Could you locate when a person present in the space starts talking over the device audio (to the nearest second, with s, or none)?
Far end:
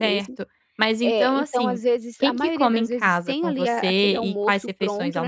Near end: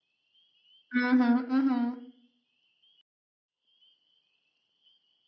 1 s